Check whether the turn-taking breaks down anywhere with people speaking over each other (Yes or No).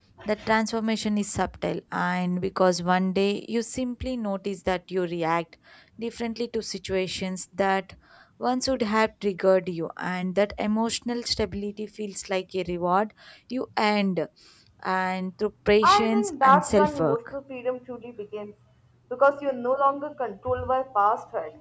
Yes